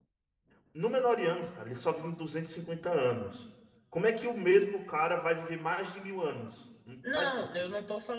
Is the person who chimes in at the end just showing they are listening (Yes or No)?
No